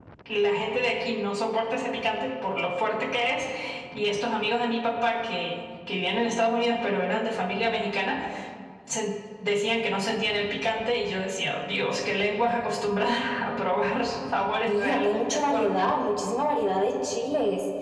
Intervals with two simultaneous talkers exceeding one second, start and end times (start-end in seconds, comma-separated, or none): 14.7-16.0